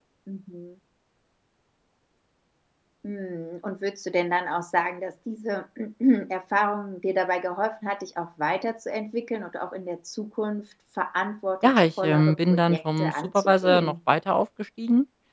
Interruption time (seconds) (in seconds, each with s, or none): 11.6 s